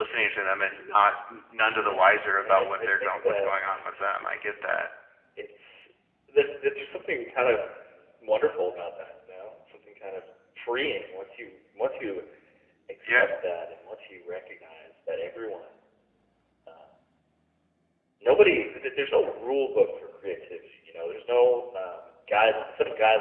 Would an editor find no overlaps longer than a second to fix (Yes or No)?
No